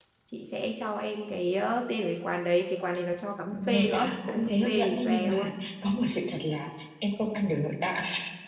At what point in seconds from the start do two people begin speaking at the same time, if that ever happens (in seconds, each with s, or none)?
3.5 s